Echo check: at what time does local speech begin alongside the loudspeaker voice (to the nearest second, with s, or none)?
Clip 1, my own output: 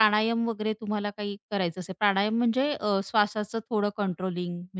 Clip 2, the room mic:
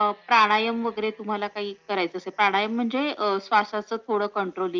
none